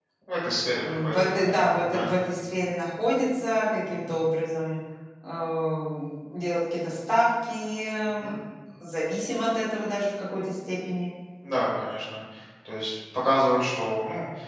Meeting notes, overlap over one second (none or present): present